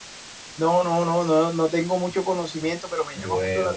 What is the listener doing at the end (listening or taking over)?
listening